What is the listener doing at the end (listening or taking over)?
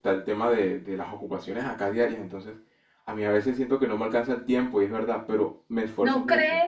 taking over